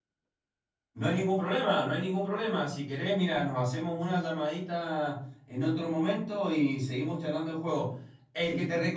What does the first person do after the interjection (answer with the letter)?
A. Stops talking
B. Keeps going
B